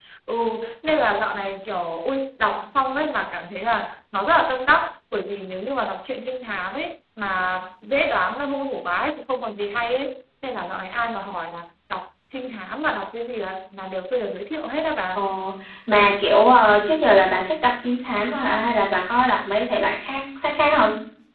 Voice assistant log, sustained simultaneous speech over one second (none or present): none